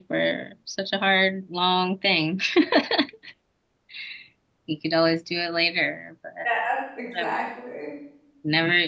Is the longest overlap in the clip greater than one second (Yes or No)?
No